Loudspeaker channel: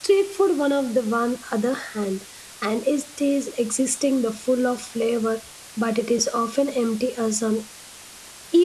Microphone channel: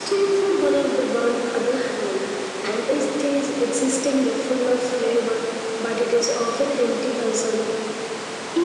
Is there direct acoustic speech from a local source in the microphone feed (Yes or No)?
No